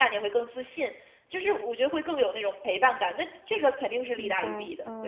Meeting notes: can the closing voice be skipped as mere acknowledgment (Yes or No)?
No